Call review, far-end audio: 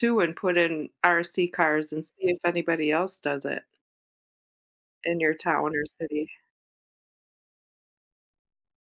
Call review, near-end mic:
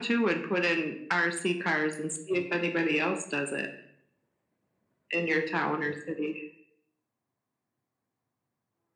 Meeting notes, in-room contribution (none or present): none